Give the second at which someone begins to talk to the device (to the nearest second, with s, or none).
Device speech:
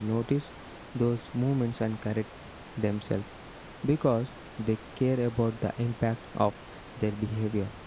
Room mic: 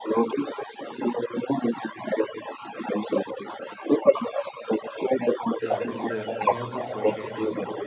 6 s